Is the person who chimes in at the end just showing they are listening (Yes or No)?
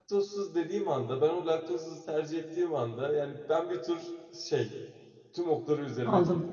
No